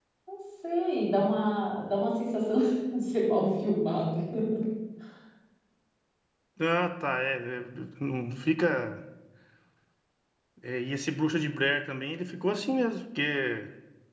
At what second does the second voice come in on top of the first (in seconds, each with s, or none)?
none